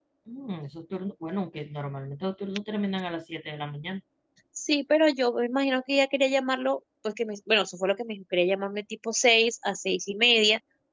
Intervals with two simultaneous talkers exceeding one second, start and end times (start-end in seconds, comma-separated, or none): none